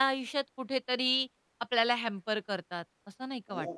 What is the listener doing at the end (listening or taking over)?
taking over